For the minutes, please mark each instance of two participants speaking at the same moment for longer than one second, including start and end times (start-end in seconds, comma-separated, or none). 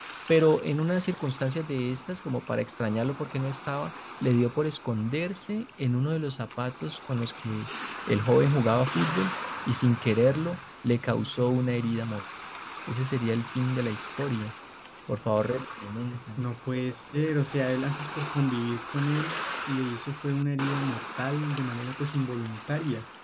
none